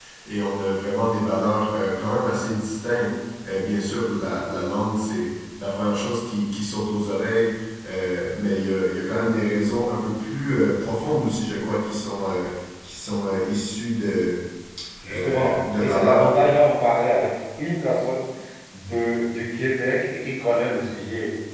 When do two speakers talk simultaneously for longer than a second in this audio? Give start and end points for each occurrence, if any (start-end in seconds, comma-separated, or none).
15.1-16.3